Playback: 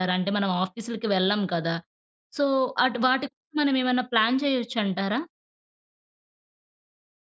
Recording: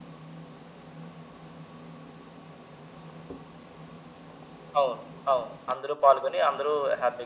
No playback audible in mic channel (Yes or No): Yes